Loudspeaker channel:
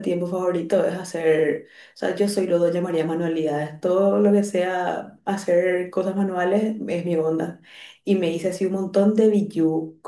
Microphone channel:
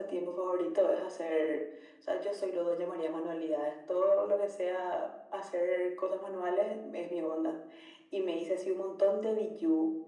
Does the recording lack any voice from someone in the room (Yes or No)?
Yes